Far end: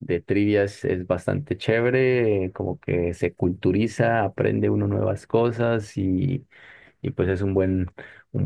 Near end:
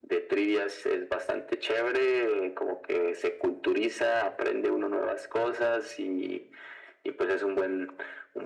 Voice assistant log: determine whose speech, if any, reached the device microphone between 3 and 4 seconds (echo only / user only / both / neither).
echo only